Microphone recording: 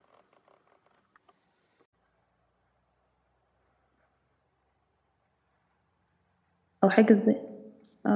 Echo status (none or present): none